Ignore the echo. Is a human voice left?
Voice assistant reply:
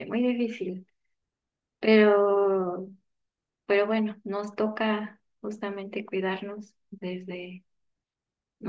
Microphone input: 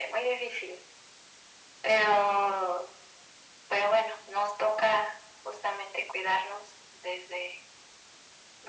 No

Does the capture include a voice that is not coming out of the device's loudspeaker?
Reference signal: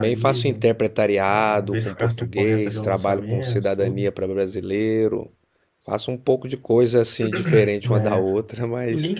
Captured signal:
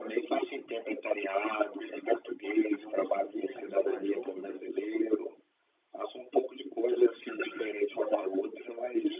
Yes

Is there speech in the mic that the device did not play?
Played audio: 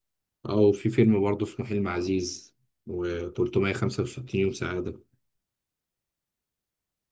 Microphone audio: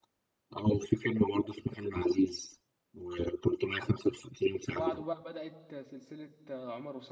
Yes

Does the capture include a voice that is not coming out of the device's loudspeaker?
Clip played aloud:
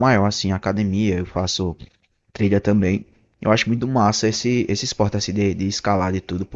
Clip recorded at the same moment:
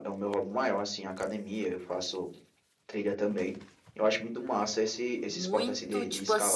Yes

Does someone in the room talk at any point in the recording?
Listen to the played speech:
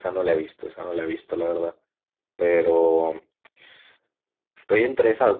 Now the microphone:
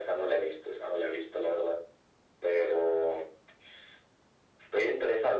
No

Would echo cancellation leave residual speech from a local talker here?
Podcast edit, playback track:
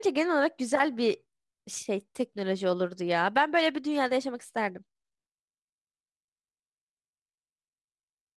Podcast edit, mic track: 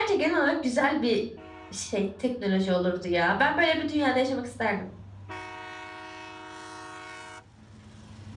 No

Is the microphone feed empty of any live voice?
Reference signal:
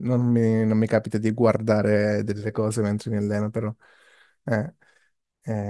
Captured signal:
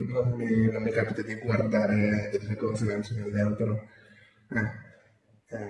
Yes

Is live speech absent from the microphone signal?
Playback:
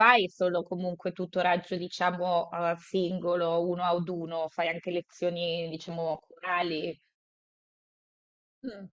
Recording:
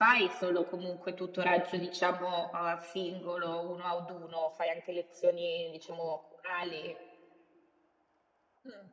Yes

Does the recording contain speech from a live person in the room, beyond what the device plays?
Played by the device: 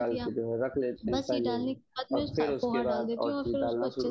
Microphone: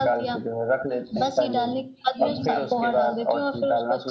Yes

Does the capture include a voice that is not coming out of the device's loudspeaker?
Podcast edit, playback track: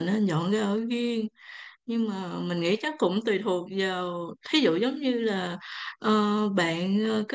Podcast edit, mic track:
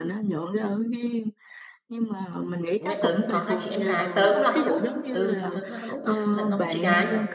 Yes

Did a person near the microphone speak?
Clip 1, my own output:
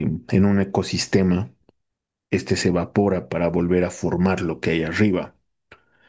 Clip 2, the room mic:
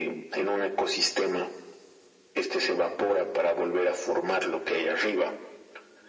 No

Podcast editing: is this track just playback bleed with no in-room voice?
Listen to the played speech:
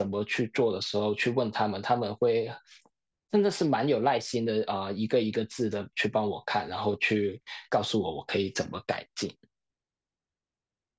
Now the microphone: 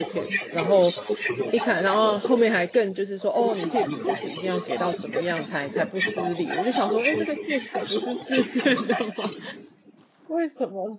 No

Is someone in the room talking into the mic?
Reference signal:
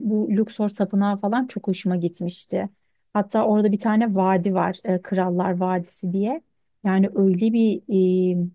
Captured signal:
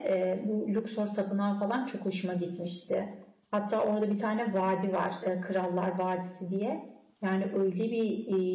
No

